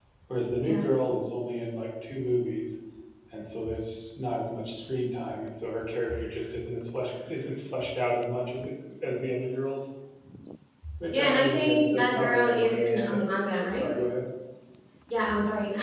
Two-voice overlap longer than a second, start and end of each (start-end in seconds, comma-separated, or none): 11.1-13.3